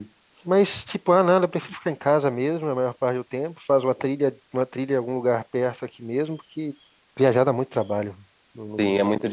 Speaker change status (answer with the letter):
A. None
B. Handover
B